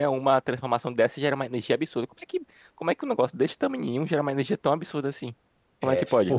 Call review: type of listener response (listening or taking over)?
taking over